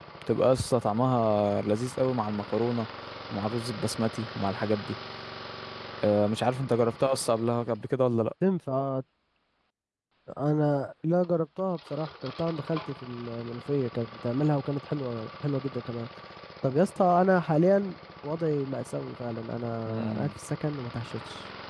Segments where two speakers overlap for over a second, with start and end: none

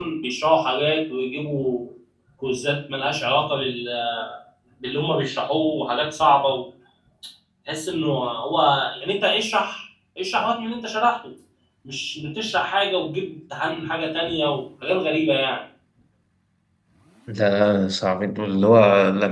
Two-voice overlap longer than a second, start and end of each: none

